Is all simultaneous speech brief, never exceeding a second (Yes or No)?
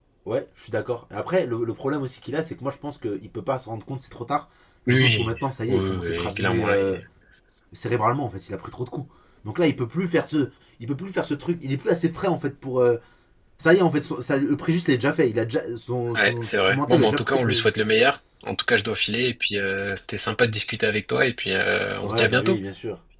No